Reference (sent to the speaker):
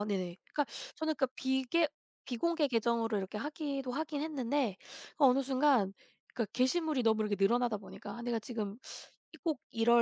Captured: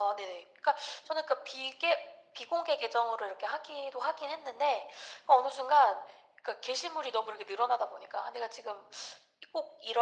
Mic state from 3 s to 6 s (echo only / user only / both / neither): echo only